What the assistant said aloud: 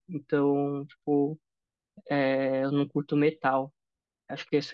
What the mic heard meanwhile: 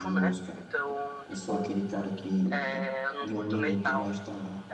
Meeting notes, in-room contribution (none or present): present